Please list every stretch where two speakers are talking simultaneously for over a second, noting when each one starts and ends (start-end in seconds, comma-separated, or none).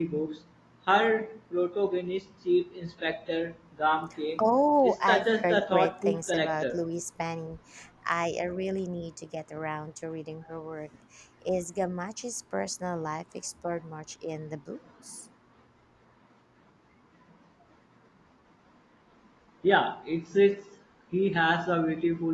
4.8-6.8